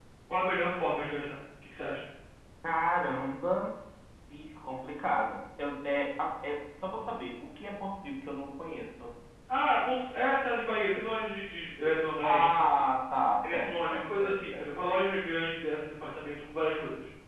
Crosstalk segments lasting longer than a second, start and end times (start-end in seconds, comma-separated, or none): 13.4-15.0